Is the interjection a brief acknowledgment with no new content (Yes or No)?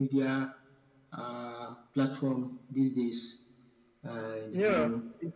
No